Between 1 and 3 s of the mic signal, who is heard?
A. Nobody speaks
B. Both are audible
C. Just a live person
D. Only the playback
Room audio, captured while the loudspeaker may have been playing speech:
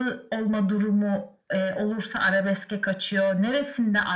D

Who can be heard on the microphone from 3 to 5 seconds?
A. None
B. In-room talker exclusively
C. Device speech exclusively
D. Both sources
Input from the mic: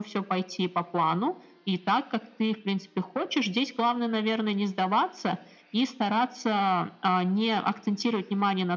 C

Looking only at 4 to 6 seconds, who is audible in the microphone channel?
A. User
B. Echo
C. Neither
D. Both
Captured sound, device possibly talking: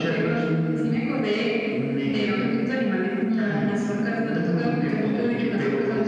B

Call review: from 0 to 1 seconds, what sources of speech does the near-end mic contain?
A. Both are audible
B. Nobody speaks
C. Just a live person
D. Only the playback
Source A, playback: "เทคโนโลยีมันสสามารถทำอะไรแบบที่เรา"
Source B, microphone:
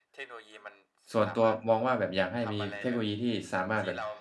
D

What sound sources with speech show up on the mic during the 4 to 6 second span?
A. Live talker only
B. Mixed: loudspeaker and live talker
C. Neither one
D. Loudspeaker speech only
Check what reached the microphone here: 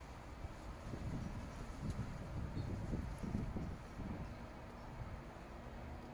C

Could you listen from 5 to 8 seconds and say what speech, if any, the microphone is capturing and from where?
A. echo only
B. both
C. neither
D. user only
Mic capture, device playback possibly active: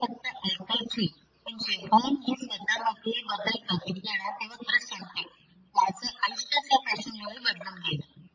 A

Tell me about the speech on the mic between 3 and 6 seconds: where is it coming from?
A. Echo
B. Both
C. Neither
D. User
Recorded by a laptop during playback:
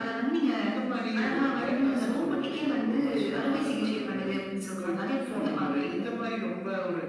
A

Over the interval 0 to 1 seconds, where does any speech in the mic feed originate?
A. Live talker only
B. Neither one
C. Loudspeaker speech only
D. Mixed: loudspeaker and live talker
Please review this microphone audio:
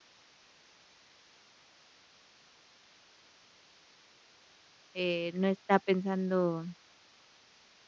B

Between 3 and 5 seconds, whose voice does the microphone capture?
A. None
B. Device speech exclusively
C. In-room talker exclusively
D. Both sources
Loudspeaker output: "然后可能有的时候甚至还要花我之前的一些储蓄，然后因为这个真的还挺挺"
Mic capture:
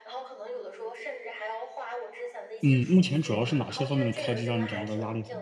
D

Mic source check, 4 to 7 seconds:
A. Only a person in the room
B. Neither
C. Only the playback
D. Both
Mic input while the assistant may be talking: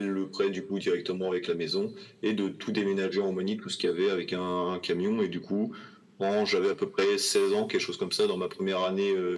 C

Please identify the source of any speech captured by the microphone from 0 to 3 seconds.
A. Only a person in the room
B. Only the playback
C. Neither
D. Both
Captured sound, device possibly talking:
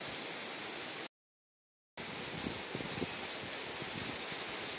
C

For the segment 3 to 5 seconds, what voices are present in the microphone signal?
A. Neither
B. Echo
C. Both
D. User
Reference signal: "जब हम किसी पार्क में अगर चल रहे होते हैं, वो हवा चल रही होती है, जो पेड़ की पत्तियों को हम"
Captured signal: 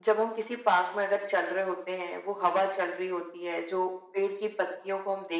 B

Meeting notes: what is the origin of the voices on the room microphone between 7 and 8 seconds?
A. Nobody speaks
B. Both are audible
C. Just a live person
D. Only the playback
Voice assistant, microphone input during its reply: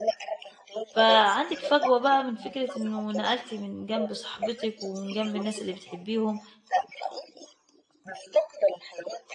D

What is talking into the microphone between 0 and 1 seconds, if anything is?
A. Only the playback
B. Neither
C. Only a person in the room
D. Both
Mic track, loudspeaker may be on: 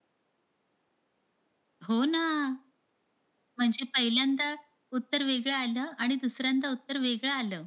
B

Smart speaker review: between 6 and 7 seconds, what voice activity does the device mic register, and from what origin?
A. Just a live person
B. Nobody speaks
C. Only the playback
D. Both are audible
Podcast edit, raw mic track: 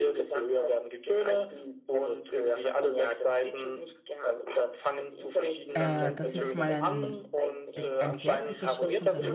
D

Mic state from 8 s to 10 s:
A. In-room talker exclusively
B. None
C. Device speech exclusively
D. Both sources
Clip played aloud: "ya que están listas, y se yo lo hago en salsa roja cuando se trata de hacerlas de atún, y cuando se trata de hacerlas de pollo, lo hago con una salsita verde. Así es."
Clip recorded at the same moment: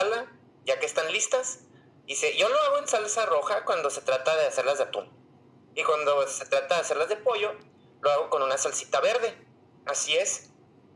C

